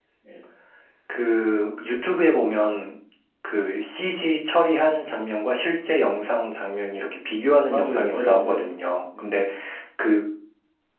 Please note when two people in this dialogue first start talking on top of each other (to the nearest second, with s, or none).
8 s